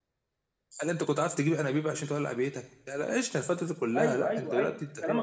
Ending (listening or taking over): taking over